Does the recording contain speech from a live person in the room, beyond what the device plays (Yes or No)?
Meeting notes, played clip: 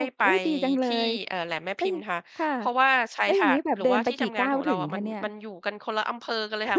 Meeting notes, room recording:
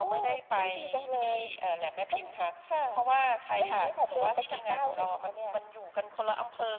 No